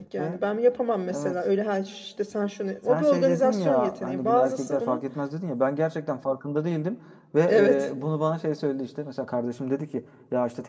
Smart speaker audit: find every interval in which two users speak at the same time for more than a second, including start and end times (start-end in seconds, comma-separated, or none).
2.9-5.0